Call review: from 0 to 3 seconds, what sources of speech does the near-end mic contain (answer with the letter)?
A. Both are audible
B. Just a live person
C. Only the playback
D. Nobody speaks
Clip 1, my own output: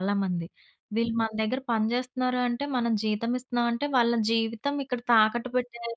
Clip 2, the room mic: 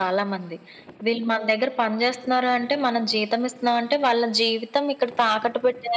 C